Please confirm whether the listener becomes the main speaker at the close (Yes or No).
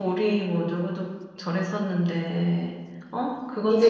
Yes